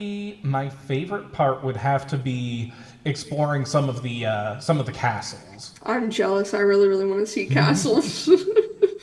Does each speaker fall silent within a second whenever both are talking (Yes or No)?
Yes